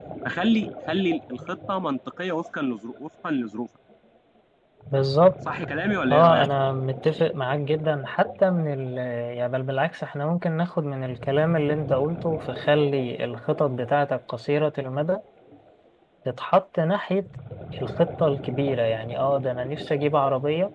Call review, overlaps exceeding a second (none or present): none